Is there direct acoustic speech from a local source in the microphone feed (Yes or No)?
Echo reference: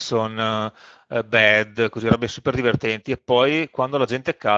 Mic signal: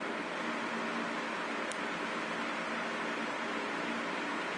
No